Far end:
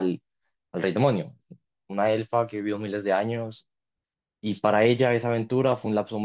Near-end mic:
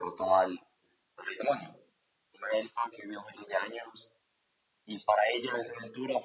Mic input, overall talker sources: echo only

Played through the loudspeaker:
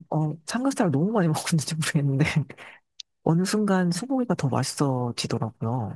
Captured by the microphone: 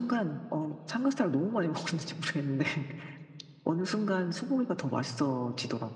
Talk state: echo only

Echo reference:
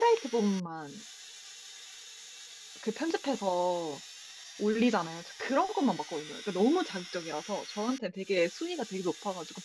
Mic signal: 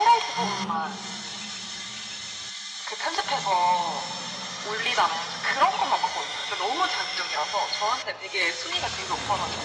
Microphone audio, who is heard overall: both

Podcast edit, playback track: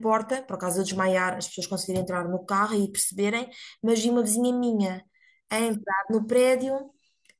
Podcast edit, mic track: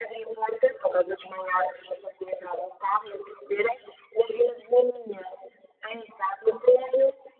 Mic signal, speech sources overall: echo only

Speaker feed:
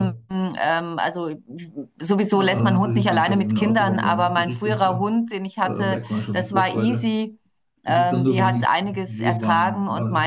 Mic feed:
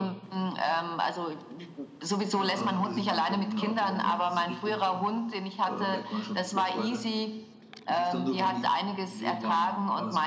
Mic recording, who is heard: echo only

